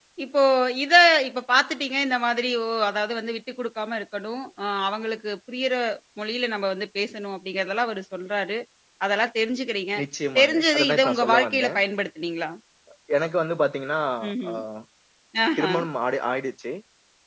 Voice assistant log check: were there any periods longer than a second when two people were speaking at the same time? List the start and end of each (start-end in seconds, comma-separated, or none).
10.4-11.8